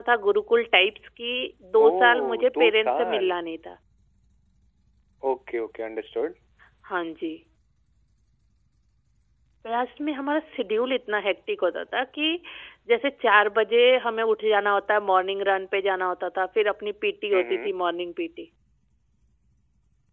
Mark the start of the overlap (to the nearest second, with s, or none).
2 s